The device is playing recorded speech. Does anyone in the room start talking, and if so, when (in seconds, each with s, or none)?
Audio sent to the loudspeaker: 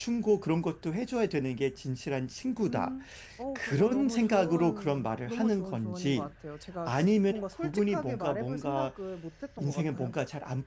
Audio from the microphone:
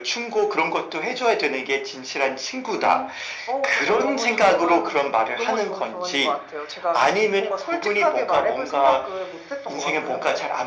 none